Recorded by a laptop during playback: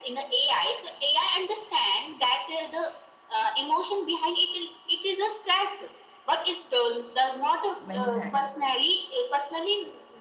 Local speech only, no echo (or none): Many thanks.